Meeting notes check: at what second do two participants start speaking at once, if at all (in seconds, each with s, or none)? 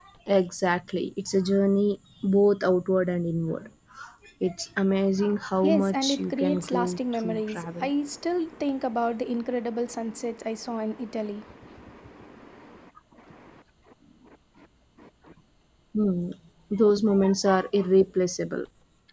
5.6 s